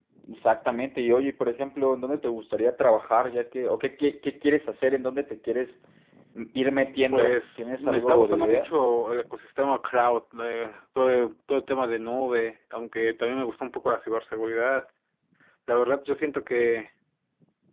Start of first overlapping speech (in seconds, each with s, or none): 7.1 s